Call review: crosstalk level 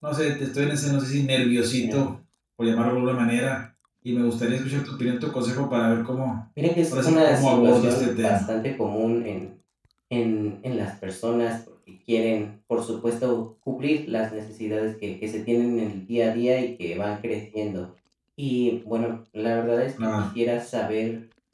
present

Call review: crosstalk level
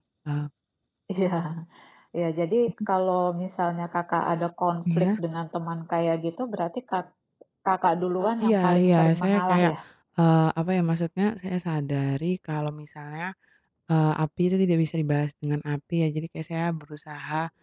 present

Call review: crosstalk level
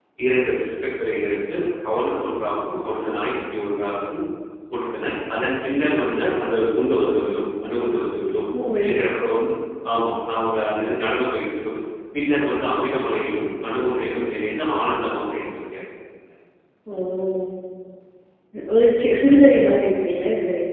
none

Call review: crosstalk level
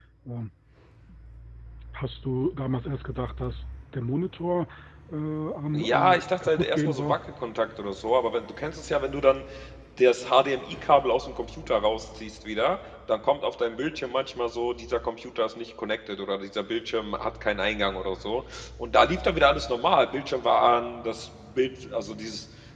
present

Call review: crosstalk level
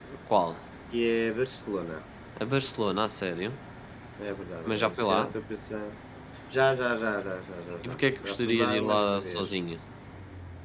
present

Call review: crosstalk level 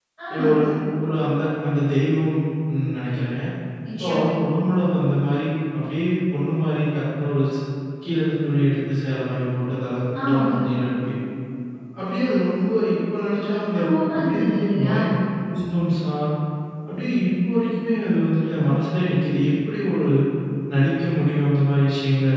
present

